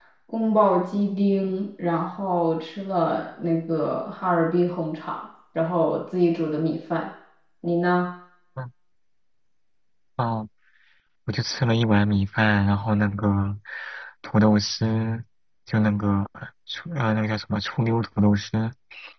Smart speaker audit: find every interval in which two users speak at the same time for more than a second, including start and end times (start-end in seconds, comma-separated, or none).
none